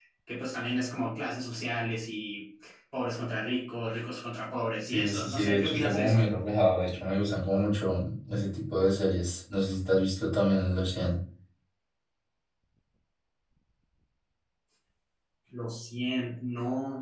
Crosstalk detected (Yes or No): Yes